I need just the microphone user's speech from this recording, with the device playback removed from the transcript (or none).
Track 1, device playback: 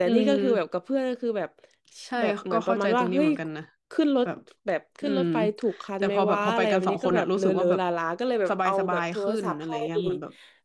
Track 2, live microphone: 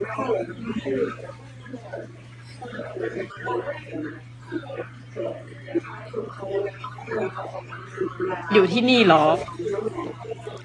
อยู่ที่นี่เหรอ